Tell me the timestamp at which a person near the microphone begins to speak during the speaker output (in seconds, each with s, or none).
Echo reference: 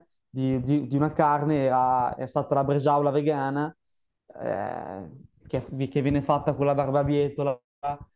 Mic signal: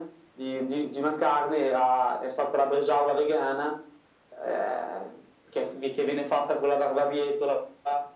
none